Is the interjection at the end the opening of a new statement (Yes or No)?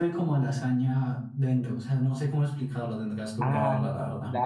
Yes